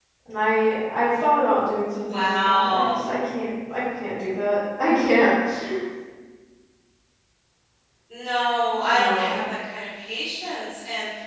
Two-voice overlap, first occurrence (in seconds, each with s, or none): 1.9 s